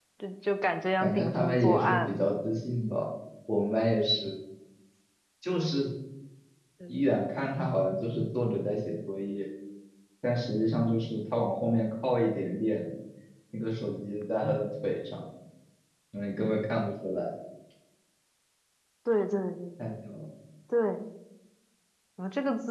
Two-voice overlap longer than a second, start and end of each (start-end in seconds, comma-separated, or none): 1.0-2.3